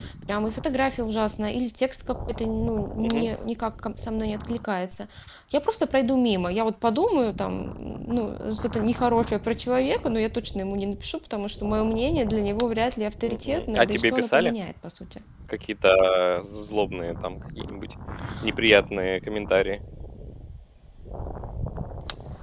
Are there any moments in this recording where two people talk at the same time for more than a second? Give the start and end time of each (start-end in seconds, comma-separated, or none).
13.2-14.5